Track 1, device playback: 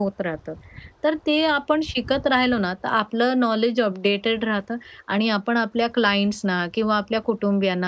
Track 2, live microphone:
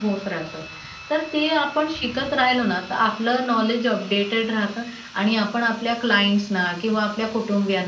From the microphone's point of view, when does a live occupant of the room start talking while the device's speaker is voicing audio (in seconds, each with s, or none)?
none